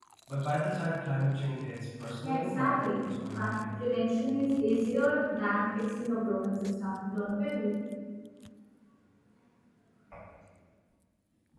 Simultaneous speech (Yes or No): Yes